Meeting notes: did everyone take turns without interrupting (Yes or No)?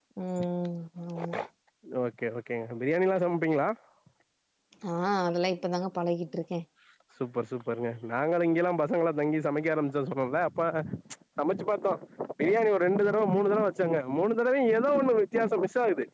Yes